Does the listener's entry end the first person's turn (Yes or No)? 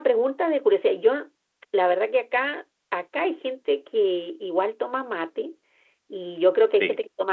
No